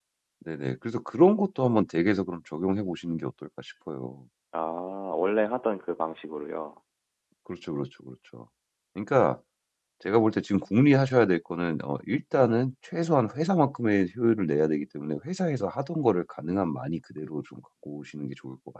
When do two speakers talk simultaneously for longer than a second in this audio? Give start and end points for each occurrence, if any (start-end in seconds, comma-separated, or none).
none